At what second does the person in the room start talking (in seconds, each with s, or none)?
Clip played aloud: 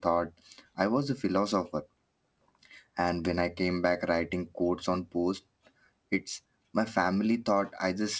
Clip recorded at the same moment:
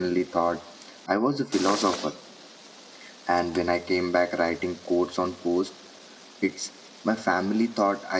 none